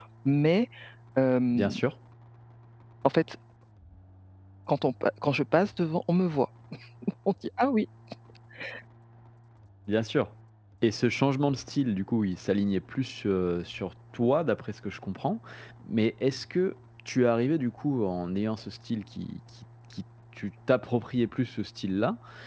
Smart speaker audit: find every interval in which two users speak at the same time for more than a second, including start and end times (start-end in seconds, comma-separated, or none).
none